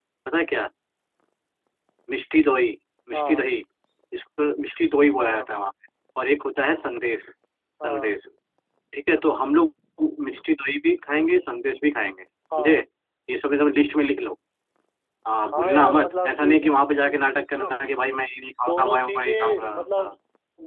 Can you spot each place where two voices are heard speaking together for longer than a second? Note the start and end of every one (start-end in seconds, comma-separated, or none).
15.5-16.7, 18.6-20.1